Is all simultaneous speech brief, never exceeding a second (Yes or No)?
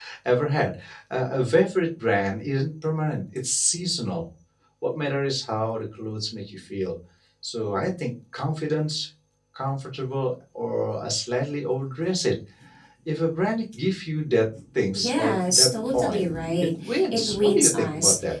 No